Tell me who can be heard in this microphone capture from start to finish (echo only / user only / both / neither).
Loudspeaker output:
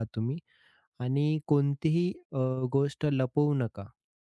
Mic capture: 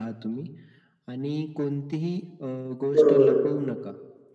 both